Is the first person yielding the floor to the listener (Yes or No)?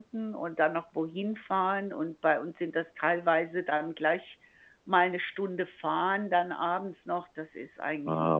Yes